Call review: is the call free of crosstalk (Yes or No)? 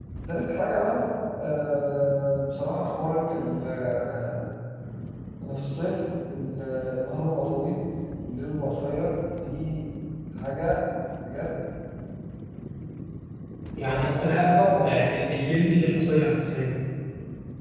No